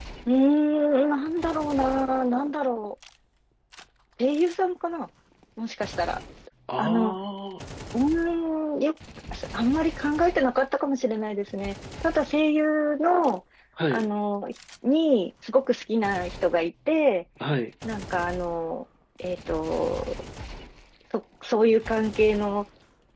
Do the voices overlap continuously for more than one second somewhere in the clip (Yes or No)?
No